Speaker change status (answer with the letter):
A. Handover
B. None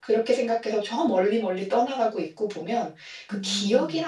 B